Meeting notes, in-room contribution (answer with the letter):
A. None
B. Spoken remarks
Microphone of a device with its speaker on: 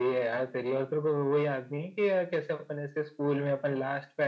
A